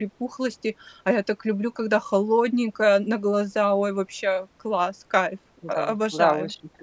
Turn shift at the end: Yes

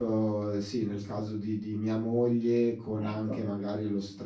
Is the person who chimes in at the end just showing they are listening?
Yes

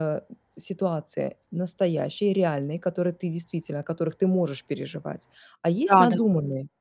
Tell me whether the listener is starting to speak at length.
No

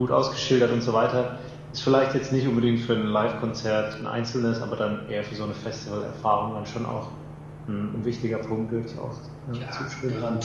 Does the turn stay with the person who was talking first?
No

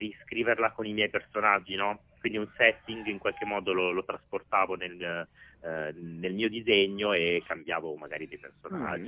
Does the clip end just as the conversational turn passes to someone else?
Yes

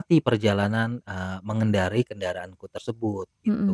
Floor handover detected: Yes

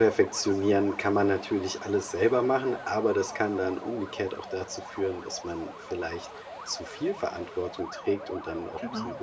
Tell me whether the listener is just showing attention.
Yes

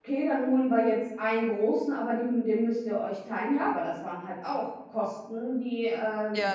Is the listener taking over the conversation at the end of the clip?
No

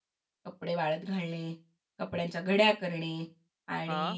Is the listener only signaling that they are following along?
Yes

